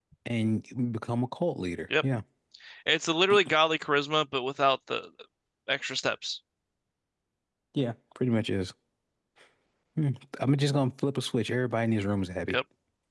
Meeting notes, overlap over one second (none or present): none